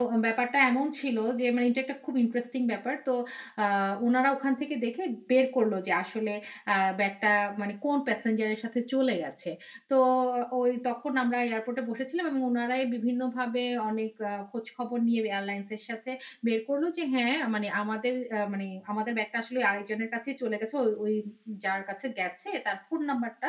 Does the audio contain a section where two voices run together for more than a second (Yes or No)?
No